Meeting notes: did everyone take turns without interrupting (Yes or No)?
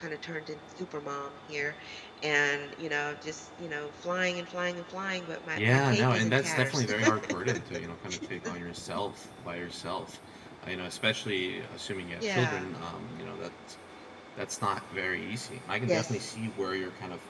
No